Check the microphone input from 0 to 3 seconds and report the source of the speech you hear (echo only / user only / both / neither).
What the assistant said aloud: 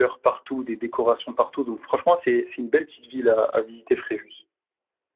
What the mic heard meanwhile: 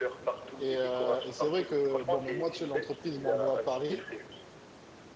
both